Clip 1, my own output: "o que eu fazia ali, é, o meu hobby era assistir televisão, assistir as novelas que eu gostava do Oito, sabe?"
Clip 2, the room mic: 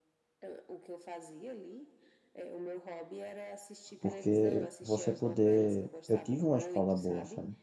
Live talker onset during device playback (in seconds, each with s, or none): 4.0 s